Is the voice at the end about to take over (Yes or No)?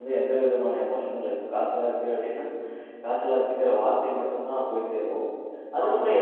No